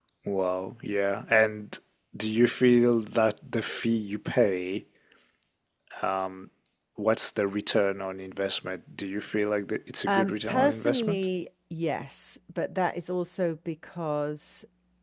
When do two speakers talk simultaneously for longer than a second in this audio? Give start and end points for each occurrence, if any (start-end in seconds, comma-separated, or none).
10.1-11.3